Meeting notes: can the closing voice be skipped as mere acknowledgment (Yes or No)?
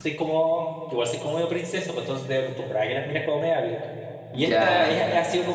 Yes